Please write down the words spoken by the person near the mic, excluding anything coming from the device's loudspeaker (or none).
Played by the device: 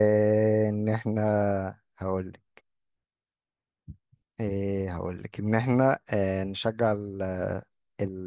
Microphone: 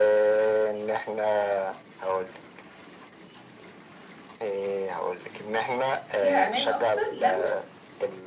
فيها امان اكتر لما